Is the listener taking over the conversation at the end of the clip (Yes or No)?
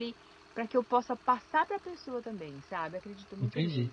Yes